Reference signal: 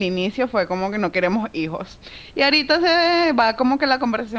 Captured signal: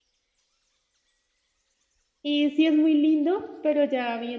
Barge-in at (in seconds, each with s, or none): 2.2 s